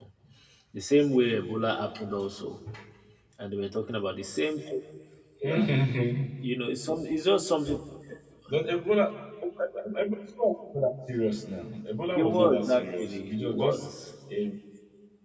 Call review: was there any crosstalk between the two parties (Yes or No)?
Yes